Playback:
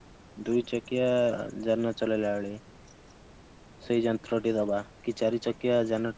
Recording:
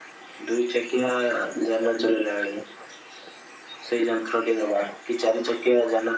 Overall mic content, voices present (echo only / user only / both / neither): echo only